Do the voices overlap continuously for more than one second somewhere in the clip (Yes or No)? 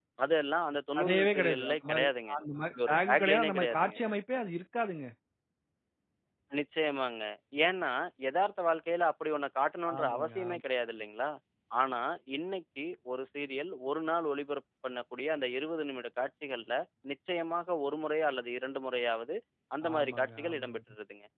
Yes